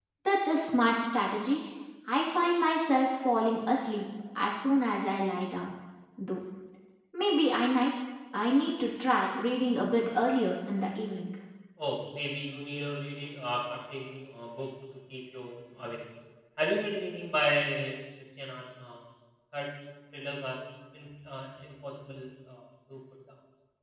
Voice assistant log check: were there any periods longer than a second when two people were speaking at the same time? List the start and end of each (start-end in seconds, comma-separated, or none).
none